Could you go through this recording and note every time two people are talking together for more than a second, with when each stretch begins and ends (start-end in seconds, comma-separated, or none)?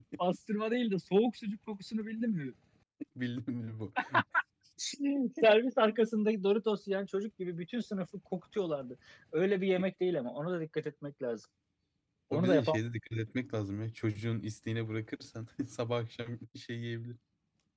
none